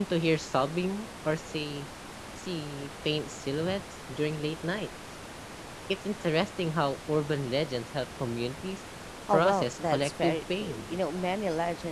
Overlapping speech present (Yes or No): Yes